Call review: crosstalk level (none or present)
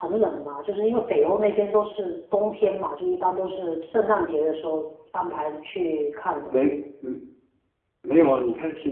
none